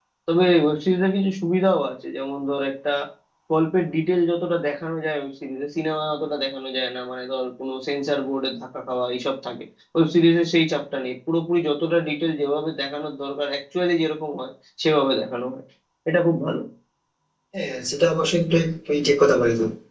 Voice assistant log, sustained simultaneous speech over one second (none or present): none